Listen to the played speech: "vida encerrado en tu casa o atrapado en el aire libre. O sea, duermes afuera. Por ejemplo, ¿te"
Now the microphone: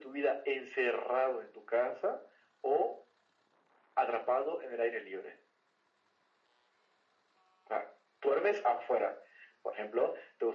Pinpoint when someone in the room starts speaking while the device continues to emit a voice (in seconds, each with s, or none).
none